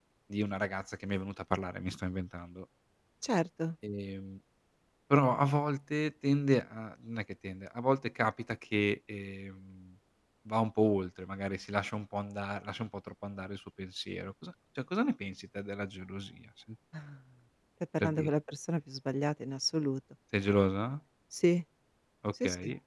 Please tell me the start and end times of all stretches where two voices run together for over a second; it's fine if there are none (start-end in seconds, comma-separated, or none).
none